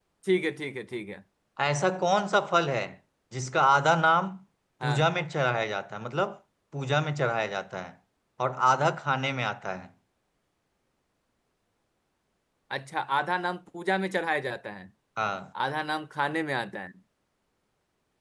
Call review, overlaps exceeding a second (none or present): none